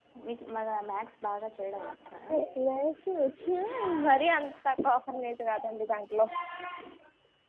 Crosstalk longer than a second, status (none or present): none